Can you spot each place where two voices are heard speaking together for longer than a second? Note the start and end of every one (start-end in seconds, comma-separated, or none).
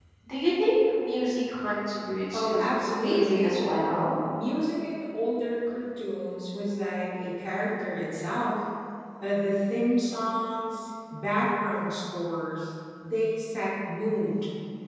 2.3-3.6